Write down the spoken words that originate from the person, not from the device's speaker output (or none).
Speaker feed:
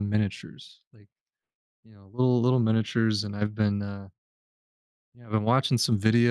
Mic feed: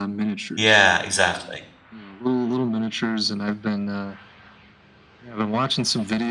Yeah, exactly.